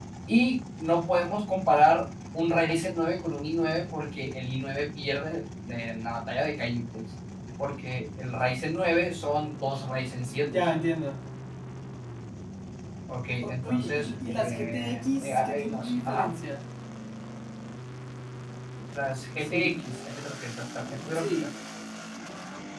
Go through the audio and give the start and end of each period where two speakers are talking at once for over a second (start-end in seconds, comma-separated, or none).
13.4-16.3